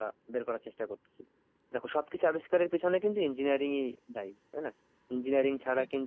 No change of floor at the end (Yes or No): Yes